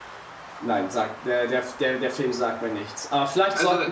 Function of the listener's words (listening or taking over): listening